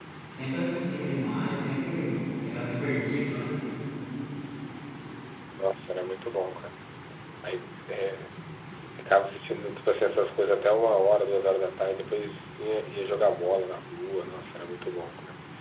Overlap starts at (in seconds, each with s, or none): none